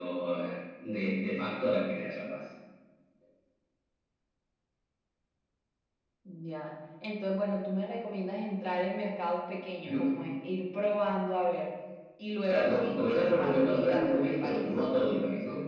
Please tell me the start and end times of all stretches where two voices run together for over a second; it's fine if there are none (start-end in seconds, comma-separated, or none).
12.5-14.6